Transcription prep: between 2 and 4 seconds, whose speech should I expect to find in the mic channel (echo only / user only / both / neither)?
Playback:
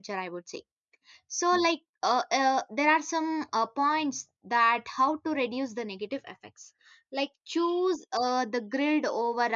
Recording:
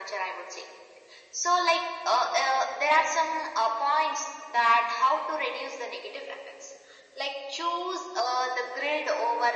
echo only